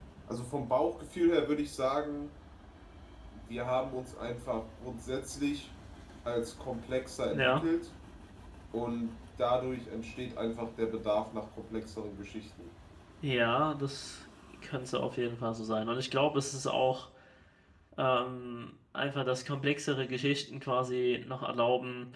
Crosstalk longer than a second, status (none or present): none